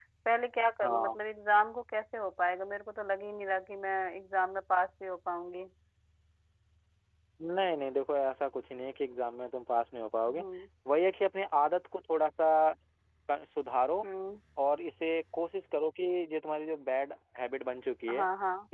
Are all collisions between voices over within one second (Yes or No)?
Yes